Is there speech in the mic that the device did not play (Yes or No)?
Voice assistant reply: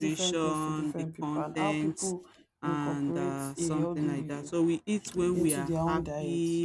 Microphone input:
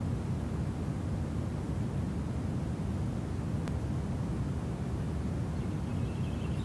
No